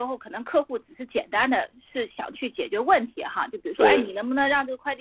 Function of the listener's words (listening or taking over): listening